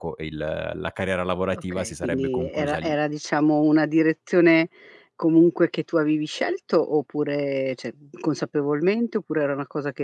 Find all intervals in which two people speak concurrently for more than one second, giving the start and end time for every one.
1.5-2.9

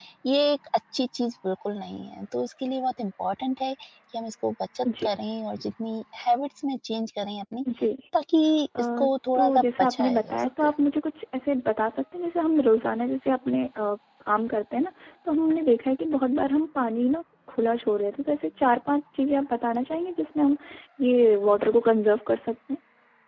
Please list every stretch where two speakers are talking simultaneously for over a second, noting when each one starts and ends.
9.3-10.7

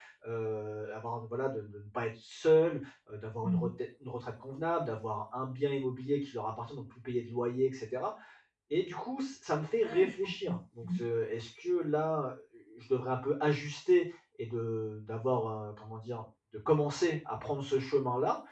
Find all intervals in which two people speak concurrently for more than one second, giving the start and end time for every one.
9.8-11.0

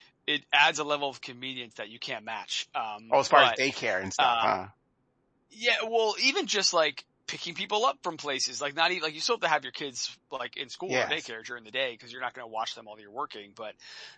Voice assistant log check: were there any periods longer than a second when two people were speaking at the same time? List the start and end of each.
none

